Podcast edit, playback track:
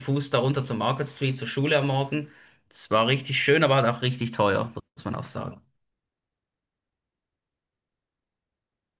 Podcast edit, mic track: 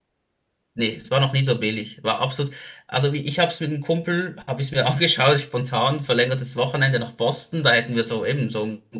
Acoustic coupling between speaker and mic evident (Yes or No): No